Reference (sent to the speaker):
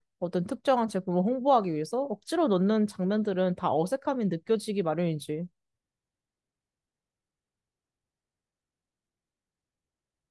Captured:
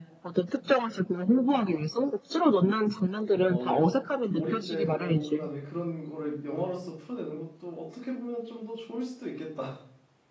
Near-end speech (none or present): present